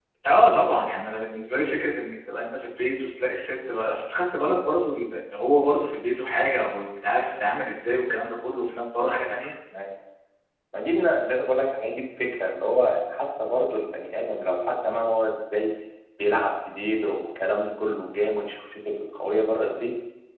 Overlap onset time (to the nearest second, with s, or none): none